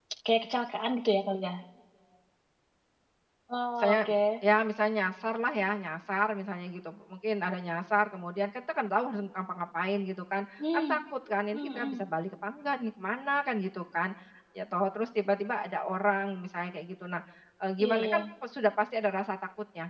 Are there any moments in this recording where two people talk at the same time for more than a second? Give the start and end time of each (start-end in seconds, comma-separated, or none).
none